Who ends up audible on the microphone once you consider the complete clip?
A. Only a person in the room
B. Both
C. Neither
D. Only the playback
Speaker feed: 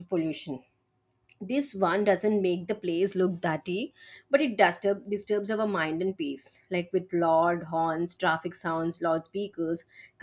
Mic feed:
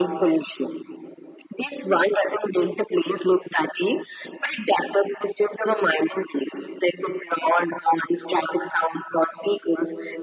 D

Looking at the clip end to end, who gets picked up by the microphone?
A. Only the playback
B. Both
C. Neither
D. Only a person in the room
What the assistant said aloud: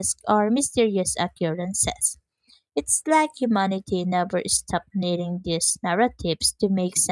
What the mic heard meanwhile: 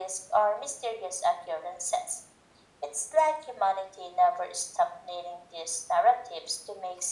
A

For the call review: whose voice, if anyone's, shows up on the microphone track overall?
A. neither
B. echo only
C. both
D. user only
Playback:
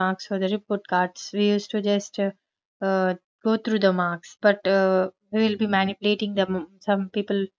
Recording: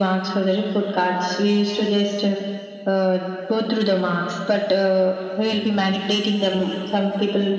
B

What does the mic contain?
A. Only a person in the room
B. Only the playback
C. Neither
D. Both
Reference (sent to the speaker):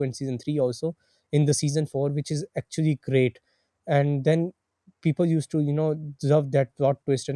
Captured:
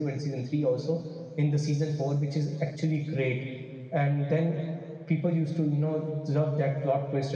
B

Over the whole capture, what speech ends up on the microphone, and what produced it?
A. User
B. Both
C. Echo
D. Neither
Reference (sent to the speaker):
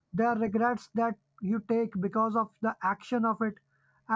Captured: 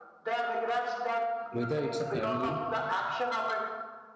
B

